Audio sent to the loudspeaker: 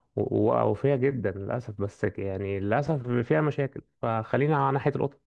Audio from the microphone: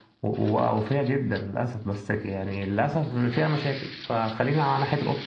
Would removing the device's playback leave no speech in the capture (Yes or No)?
Yes